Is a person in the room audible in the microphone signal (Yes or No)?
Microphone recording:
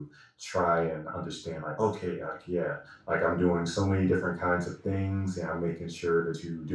No